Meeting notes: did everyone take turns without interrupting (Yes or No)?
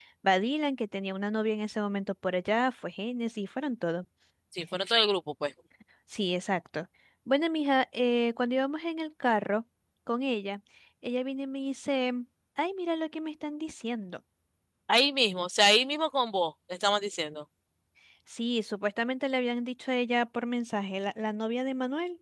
Yes